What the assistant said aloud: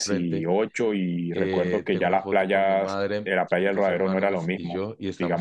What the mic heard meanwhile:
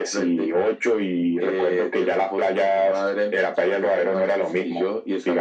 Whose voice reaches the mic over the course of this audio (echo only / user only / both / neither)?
echo only